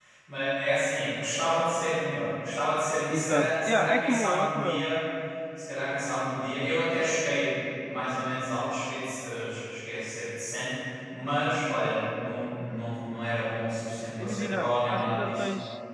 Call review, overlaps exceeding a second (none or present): present